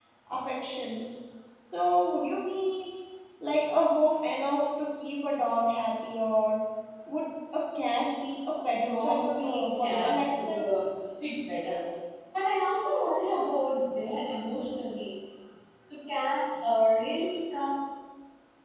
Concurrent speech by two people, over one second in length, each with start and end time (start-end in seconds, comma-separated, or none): 8.6-10.7